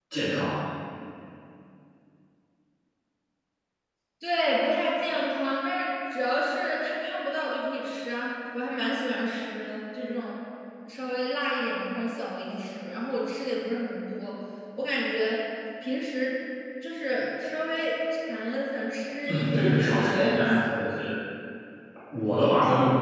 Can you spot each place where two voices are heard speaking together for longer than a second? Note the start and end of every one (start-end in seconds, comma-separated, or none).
19.3-20.7